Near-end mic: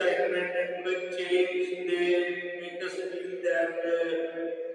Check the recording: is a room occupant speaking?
No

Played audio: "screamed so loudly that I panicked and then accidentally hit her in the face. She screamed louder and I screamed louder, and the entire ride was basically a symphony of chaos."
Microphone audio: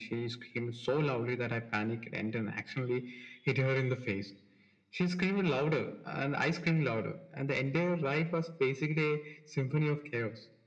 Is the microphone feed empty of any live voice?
Yes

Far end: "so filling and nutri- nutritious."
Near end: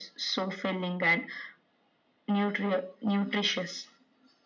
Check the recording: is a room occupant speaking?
No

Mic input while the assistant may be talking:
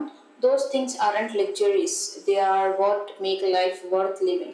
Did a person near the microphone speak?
No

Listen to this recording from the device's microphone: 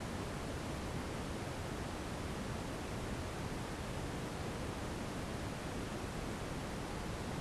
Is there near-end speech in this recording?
No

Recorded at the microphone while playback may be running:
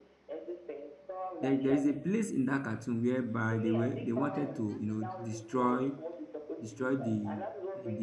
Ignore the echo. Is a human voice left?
Yes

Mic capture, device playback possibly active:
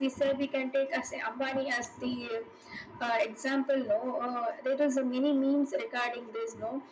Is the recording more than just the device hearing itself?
No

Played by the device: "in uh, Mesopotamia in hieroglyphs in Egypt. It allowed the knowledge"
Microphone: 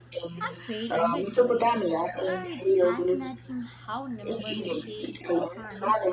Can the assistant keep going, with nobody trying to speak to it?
No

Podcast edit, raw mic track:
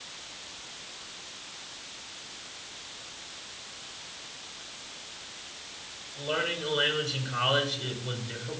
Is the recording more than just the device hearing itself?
Yes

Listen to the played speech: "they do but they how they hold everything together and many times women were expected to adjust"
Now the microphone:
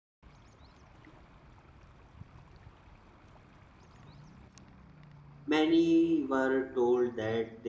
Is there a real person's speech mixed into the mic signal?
Yes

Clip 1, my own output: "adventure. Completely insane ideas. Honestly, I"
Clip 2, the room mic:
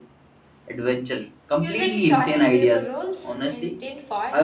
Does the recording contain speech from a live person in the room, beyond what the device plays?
Yes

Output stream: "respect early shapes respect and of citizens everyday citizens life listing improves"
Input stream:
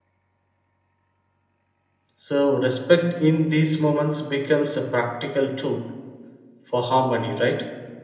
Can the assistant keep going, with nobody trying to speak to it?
No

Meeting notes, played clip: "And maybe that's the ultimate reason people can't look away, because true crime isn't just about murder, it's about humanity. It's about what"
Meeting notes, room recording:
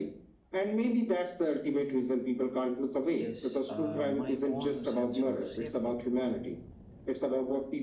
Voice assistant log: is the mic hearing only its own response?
No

